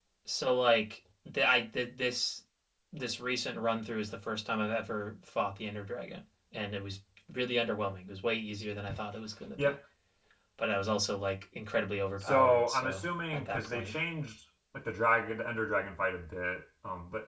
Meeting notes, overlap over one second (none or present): present